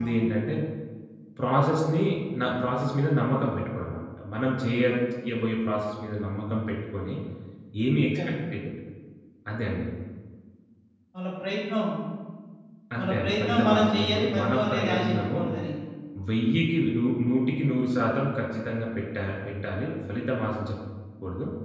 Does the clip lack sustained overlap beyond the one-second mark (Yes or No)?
No